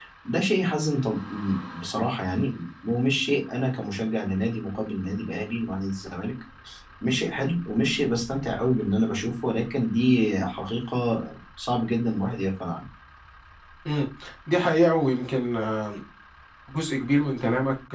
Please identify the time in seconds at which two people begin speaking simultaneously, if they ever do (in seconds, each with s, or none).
none